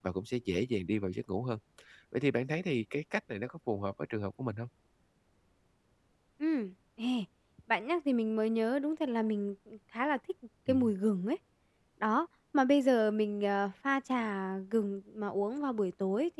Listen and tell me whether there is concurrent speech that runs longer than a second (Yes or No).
No